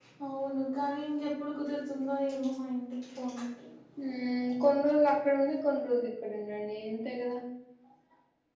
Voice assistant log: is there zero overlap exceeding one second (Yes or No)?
Yes